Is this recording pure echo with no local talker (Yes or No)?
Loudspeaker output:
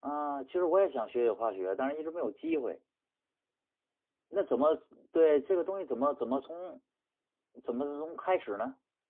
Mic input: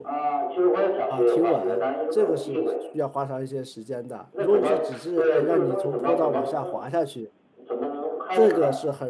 No